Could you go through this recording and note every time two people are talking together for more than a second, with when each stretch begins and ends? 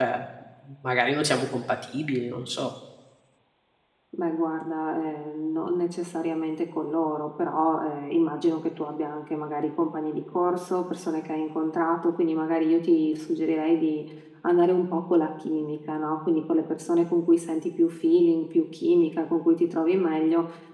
none

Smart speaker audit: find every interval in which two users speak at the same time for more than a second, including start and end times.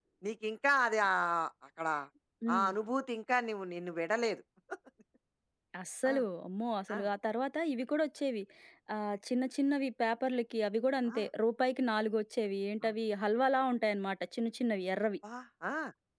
none

